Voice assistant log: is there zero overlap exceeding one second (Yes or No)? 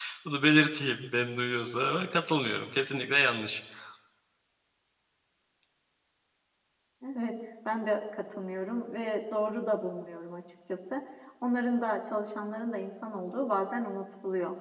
Yes